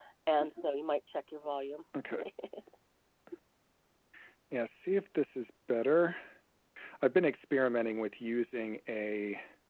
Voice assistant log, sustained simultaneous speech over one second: none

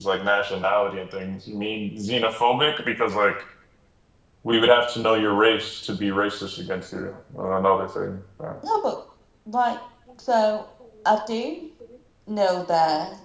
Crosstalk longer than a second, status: none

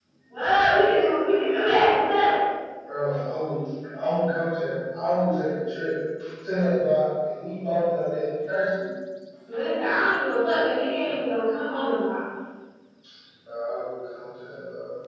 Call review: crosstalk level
none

